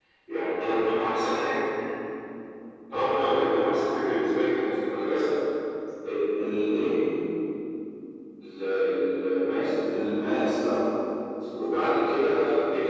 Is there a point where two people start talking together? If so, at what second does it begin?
none

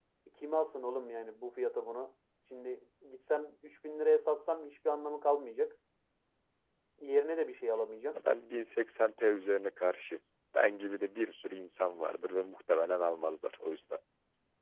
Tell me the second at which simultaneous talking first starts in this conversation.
none

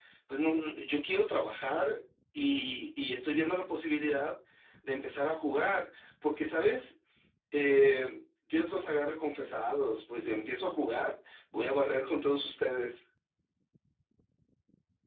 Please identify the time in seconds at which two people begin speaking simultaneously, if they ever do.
none

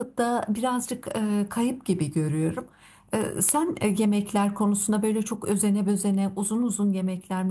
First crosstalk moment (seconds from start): none

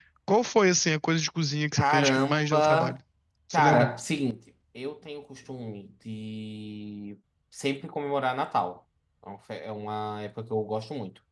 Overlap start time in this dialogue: 1.8 s

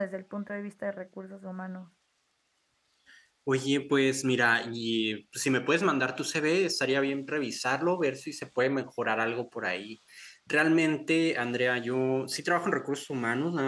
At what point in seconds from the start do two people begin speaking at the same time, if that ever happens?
none

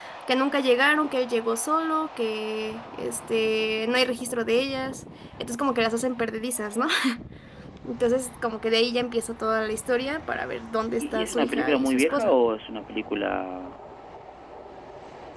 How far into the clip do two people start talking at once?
11.0 s

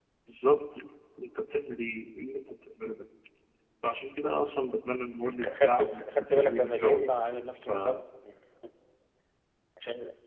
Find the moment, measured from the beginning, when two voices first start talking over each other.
5.6 s

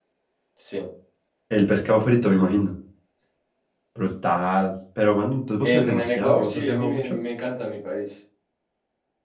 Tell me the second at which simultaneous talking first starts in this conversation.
5.6 s

